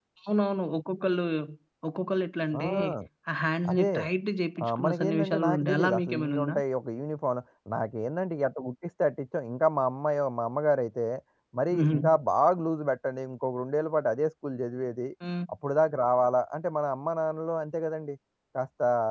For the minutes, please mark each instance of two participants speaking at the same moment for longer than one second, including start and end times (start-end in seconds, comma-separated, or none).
4.6-6.6